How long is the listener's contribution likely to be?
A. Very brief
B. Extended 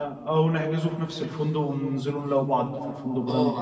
B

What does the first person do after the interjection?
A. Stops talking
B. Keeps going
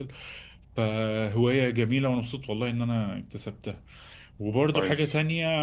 B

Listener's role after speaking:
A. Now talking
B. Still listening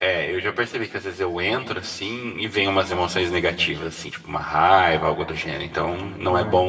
B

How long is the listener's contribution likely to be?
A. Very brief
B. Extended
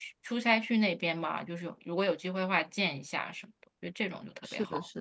B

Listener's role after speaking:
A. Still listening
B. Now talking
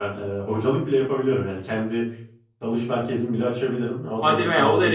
B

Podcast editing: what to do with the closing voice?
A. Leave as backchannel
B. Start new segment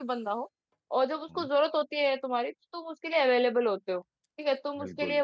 A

